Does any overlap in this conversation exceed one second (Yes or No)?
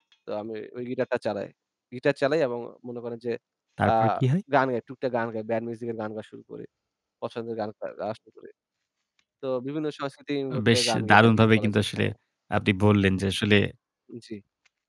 Yes